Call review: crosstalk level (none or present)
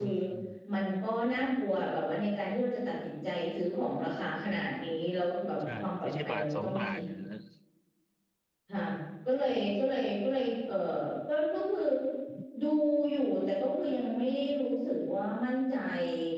present